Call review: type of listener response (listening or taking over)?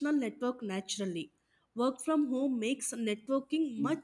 taking over